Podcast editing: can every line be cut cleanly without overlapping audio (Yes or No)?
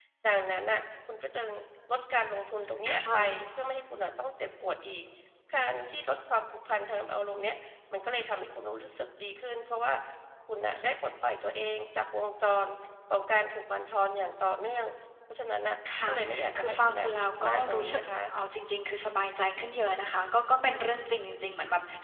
No